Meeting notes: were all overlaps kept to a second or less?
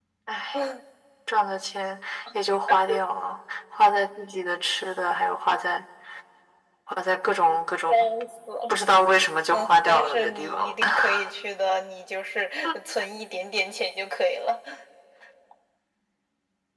No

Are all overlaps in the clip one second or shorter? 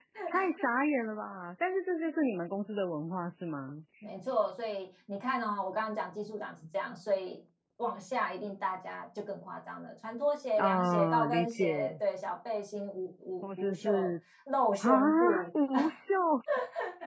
No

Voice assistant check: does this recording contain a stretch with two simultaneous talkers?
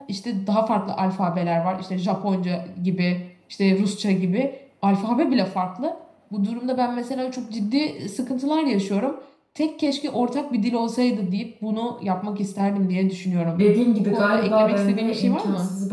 Yes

